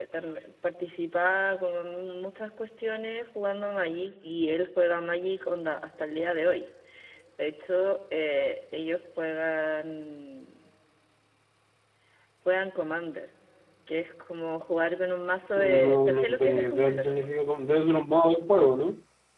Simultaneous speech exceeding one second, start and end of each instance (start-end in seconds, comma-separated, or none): 15.6-17.3